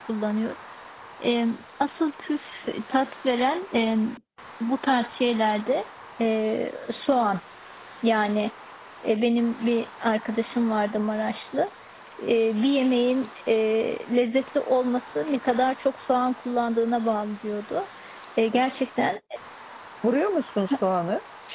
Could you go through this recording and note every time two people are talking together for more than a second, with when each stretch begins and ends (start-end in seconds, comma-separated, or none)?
none